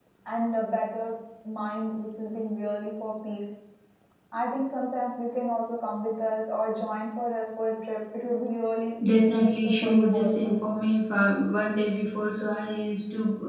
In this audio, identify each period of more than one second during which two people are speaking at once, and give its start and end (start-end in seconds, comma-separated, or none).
9.1-10.6